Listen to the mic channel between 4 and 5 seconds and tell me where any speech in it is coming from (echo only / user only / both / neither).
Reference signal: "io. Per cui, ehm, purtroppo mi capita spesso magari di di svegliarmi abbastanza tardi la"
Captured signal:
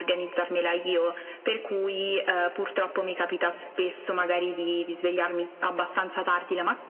echo only